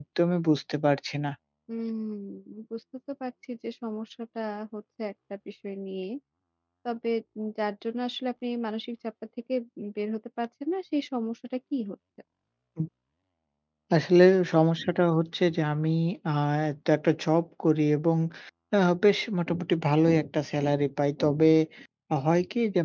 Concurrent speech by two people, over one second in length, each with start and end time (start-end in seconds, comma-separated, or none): none